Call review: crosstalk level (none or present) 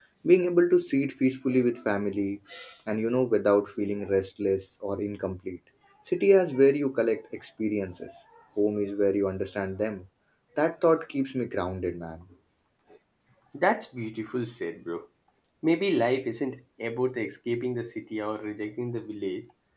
none